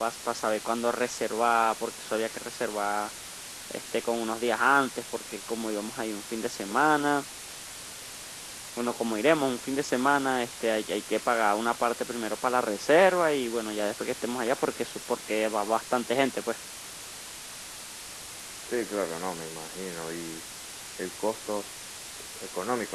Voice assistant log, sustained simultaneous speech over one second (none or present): none